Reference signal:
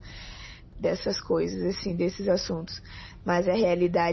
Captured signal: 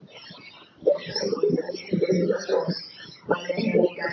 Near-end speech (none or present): none